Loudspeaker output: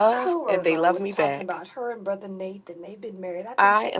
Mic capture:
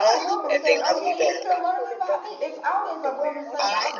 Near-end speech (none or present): present